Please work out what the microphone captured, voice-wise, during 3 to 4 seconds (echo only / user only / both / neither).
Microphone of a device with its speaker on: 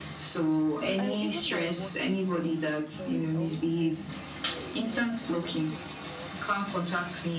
both